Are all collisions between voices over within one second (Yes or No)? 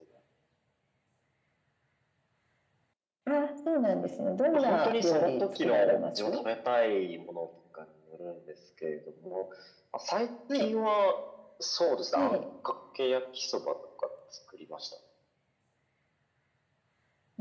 No